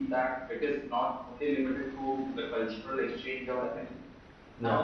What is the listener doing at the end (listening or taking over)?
listening